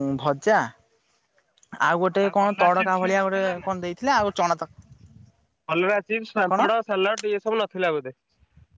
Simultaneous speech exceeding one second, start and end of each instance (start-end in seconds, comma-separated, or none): 2.4-3.7